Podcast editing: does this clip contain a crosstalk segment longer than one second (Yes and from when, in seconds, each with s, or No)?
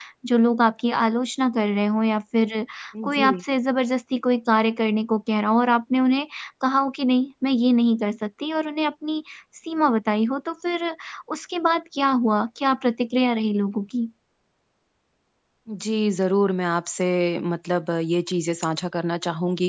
No